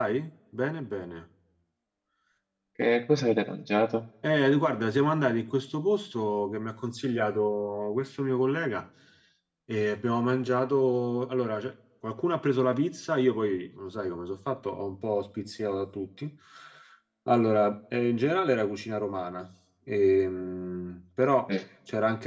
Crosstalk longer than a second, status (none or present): none